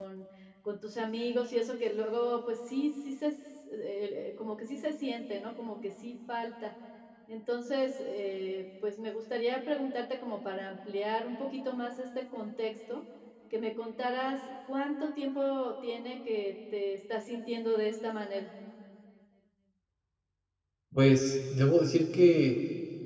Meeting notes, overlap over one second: none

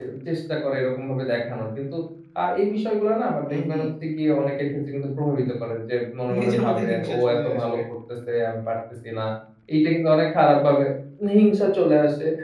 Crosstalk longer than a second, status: present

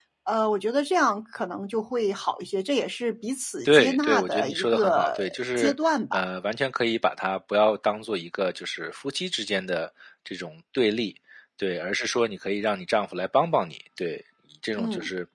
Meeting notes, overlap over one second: present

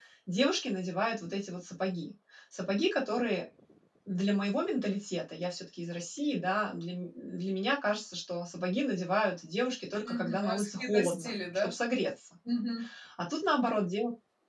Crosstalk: present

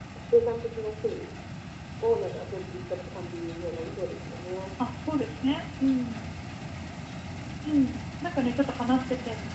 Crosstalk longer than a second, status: none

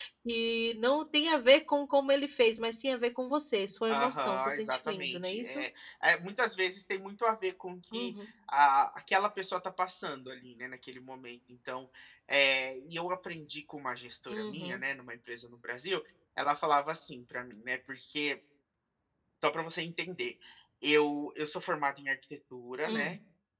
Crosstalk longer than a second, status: present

